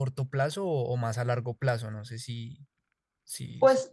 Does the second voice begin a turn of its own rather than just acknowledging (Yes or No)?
Yes